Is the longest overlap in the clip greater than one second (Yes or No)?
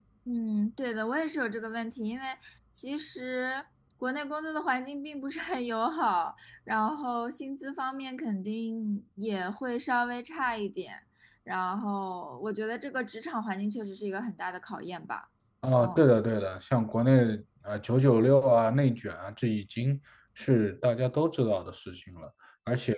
No